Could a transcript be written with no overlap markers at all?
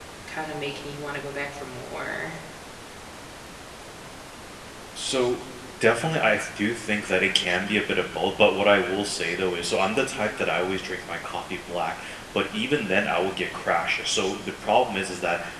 Yes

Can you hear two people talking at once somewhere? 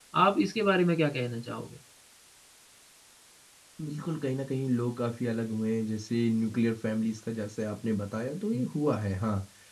No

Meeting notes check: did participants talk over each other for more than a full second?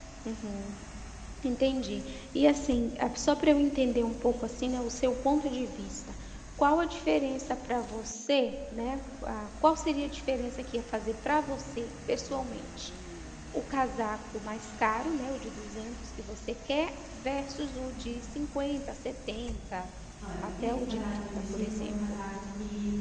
Yes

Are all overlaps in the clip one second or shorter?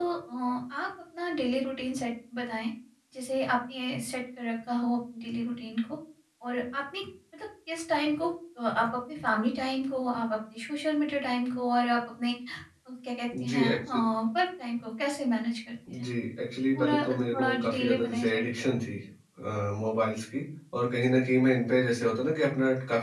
No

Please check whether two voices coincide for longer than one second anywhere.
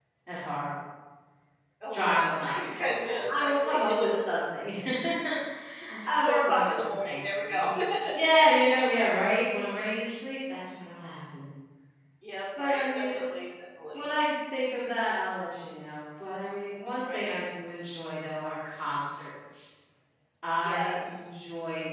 Yes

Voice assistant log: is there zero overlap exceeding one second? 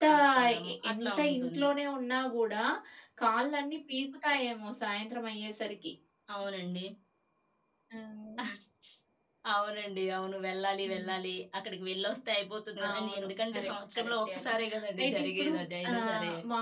No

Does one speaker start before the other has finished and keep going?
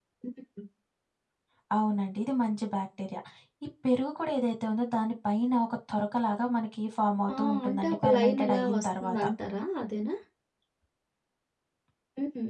Yes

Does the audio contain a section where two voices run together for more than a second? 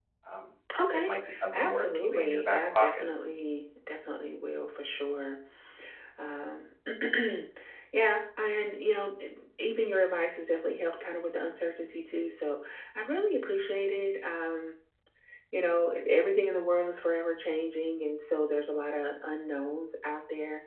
Yes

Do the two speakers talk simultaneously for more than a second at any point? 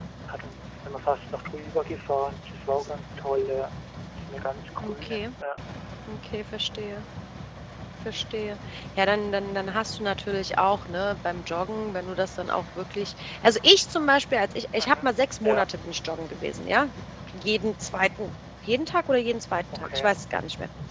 No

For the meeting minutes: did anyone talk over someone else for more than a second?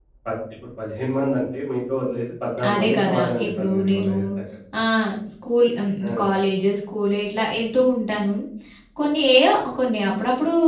Yes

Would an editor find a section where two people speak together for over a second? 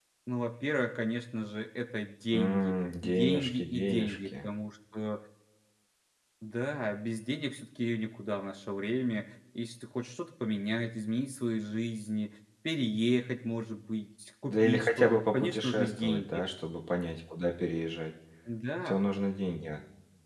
Yes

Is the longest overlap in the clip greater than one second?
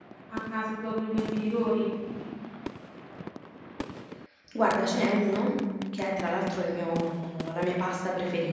No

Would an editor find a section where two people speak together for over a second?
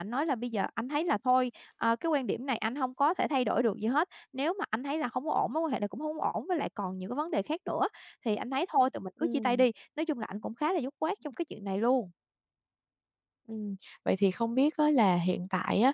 No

